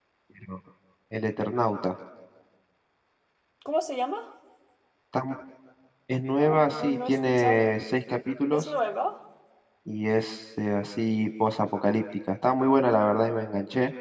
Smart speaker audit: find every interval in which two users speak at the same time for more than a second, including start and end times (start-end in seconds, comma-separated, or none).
6.4-7.7